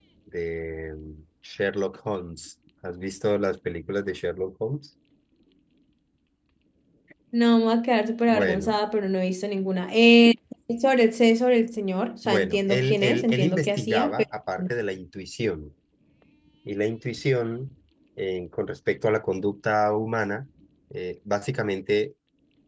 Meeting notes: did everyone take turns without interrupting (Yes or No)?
No